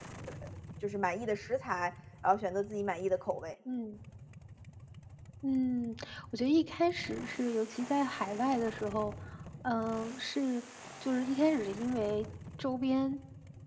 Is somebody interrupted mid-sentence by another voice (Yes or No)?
No